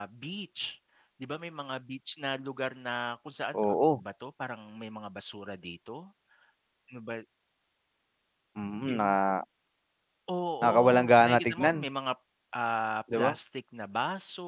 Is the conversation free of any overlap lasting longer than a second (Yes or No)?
No